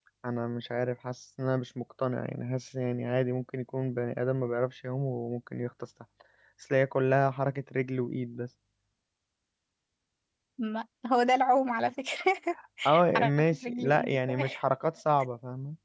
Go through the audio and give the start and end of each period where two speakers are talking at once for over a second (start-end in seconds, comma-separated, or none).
13.1-14.4